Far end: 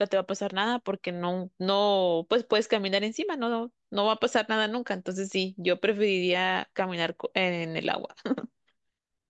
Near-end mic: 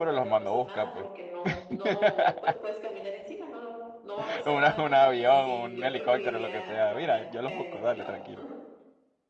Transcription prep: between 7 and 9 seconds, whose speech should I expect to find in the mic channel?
both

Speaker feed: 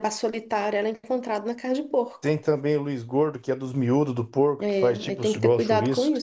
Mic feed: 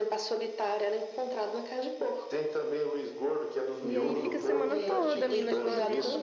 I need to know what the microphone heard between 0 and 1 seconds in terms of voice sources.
echo only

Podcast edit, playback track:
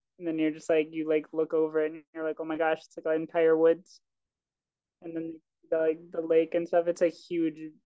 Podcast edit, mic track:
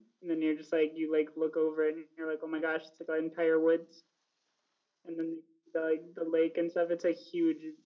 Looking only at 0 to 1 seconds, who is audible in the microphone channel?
echo only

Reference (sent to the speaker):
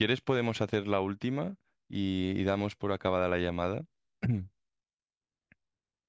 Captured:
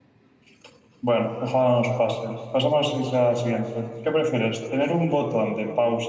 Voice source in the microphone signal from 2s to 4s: user only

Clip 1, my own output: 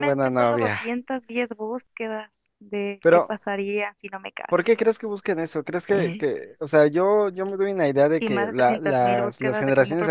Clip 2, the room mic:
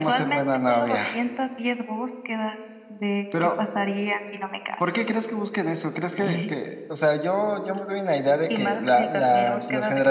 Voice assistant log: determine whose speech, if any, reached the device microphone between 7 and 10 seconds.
echo only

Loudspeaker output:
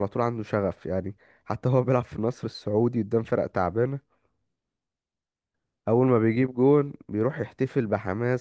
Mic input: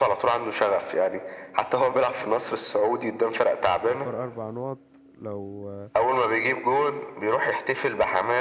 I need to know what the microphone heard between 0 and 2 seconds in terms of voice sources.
echo only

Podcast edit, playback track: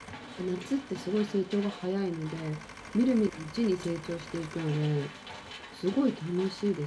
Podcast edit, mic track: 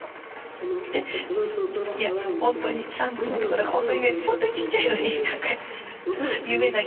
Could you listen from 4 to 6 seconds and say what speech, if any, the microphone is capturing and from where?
both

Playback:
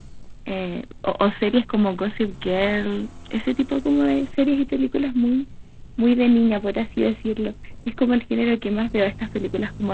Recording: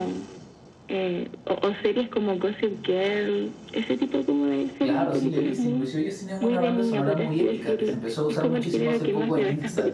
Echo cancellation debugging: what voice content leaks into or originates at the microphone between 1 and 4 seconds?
echo only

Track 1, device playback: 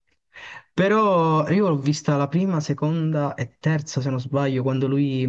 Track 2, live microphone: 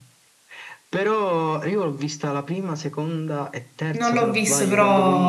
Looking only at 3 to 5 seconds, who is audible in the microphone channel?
both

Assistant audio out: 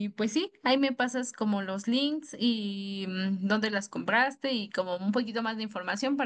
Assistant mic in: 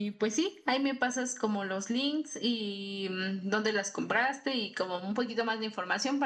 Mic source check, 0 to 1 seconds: echo only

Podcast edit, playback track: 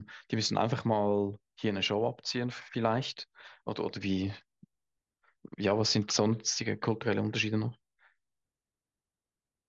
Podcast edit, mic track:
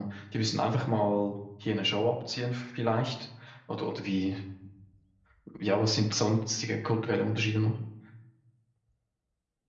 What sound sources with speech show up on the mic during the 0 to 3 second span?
echo only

